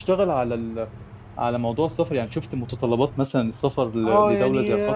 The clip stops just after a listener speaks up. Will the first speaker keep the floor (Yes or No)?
No